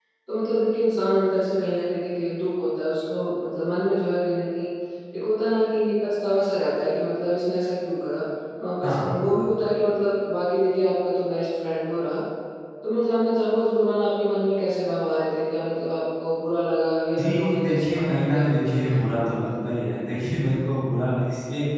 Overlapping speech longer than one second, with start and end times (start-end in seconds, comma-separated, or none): 17.2-19.0